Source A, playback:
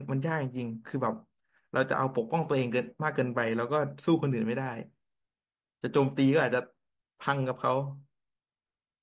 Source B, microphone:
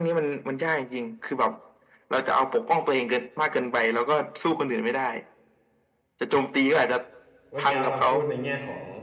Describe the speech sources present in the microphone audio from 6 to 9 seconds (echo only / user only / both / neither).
both